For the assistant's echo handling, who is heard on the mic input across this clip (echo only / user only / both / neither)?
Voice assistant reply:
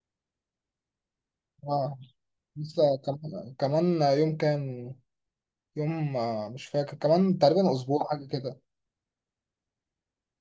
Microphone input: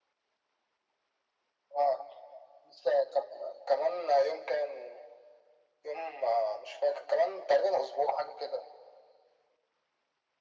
echo only